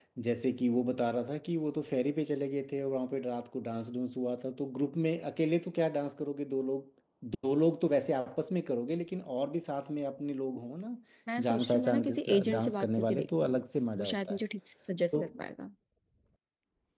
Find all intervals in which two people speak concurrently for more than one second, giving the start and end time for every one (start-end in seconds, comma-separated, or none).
11.4-13.6